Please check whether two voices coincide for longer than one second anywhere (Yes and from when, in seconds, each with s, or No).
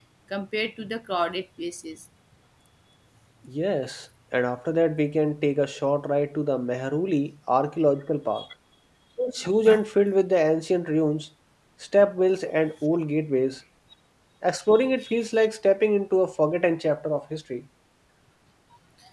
No